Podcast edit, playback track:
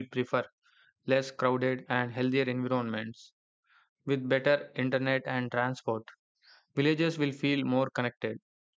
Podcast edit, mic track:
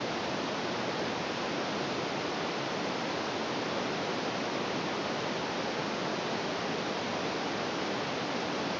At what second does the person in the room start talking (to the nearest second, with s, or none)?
none